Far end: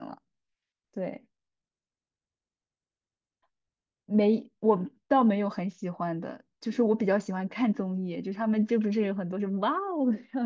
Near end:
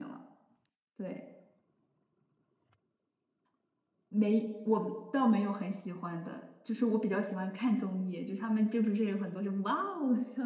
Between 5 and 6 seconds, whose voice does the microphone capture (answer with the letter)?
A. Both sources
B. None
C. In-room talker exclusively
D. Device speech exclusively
D